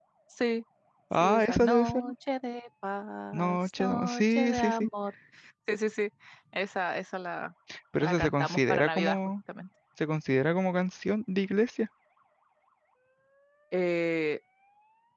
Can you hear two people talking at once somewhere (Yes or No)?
Yes